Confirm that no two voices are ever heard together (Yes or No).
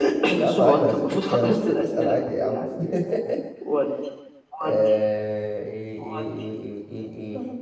No